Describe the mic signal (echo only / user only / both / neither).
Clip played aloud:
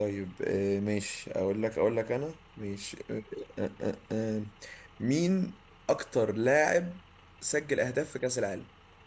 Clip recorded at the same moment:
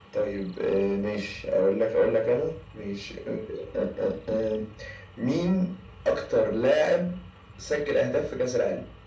echo only